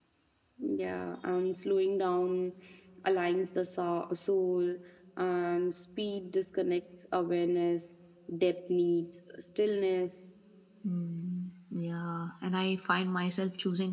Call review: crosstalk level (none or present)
none